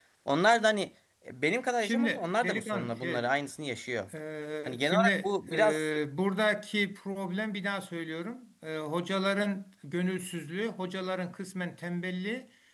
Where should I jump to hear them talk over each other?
1.8 s

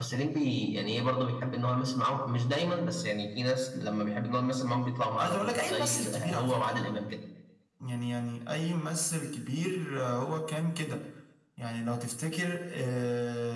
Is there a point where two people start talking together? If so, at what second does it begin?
5.2 s

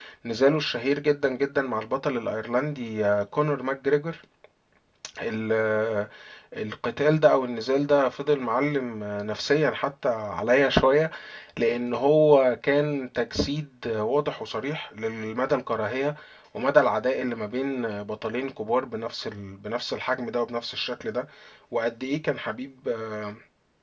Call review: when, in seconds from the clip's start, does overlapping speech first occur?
none

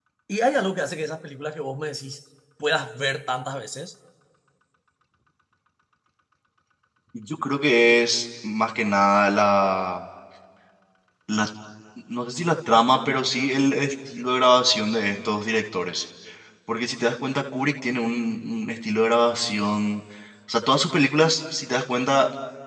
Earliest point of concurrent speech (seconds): none

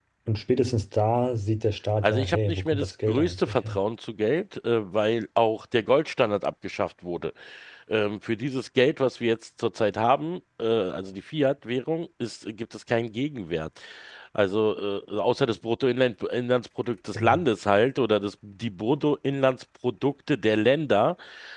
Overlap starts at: 2.0 s

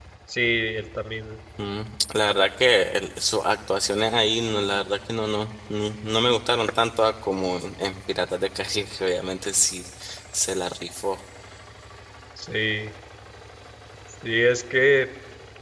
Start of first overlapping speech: none

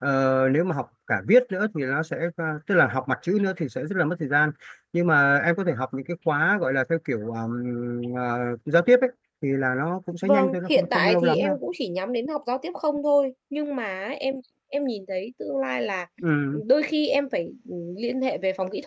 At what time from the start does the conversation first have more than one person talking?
10.2 s

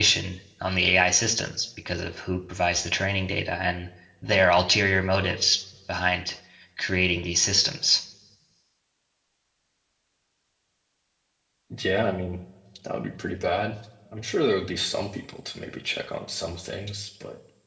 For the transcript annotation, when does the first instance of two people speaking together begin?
none

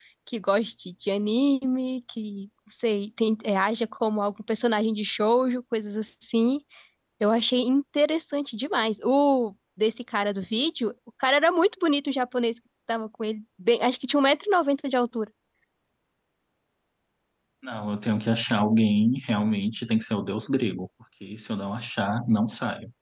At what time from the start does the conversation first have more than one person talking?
none

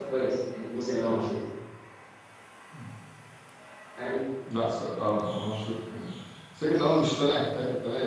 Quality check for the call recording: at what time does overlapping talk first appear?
none

